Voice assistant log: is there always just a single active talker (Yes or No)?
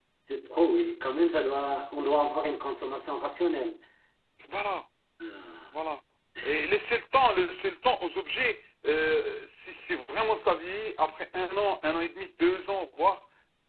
Yes